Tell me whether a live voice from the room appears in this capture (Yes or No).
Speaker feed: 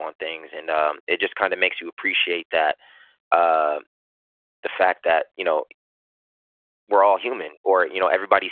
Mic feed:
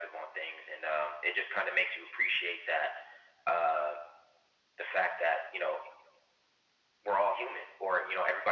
No